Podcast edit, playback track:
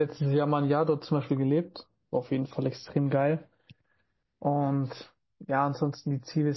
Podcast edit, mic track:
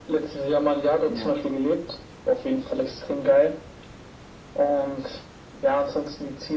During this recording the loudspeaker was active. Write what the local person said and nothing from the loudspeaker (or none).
Ja,